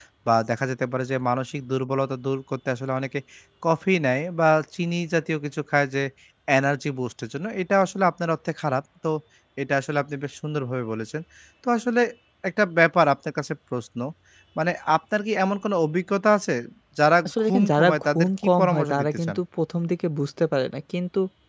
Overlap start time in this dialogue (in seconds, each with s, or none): 17.2 s